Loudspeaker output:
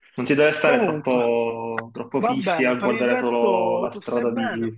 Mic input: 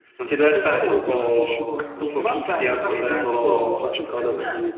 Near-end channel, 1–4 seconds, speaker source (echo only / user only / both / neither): both